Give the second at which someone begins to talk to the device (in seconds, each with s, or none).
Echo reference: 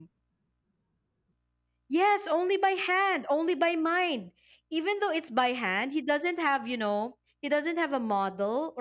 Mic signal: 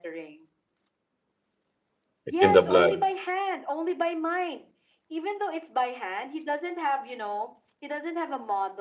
2.3 s